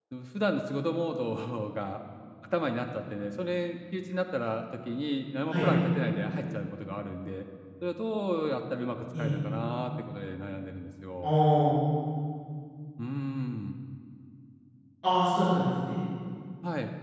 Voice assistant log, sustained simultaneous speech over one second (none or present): none